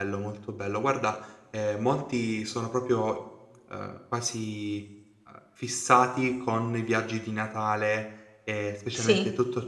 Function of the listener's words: listening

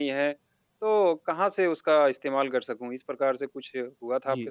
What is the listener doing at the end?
taking over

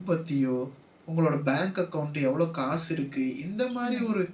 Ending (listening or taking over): listening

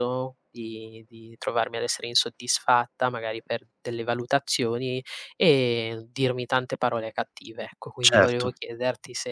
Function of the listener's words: listening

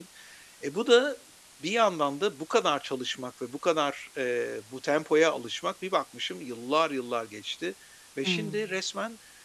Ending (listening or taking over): listening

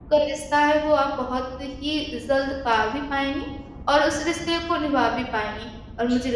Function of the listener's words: listening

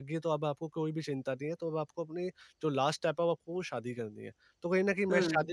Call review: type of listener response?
listening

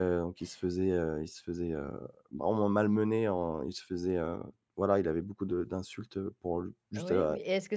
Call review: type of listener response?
taking over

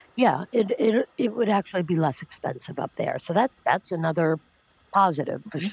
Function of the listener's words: taking over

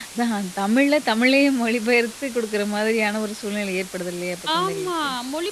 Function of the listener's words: taking over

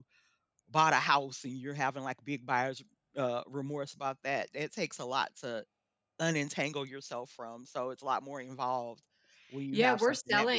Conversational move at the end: taking over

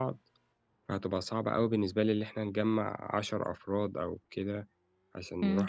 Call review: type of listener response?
taking over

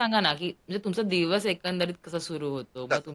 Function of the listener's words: listening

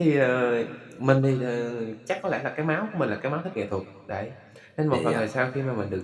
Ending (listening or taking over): listening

